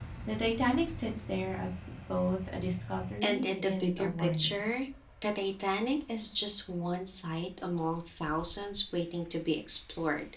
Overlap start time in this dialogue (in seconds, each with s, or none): 3.2 s